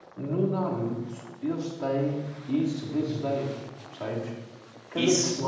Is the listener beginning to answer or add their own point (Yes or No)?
No